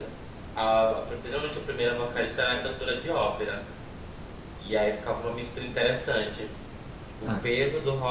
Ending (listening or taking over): listening